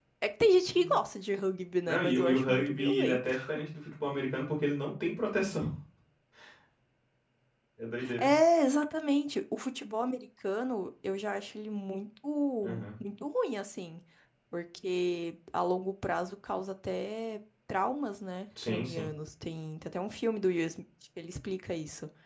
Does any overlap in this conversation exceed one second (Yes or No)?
Yes